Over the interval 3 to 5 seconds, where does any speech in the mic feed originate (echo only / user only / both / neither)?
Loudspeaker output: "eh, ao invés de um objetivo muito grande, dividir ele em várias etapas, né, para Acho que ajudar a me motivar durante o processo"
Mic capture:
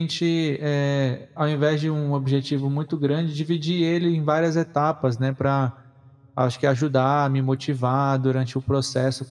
echo only